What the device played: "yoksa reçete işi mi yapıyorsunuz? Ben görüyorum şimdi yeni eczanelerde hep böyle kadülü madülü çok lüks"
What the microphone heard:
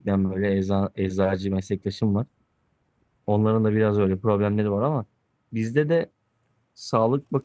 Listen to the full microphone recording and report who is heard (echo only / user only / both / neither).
user only